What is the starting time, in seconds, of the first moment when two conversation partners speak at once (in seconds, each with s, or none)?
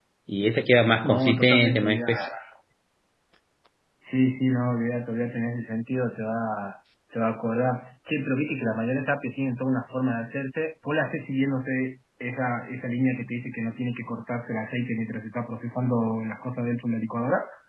1.0 s